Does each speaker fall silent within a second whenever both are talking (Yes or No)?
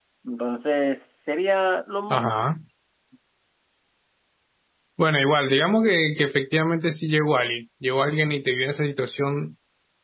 Yes